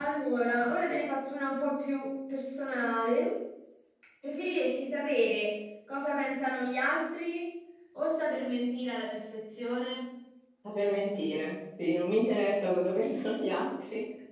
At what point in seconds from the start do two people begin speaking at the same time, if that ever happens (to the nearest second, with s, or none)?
none